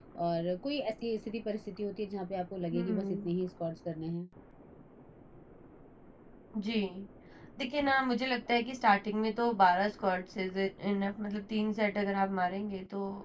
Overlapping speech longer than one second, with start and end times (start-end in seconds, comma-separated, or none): none